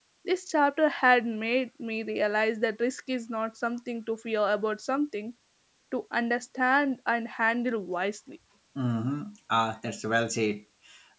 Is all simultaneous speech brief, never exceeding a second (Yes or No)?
Yes